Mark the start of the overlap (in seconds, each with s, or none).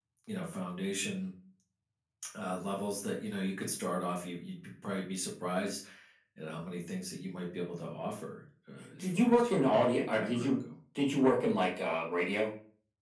9.0 s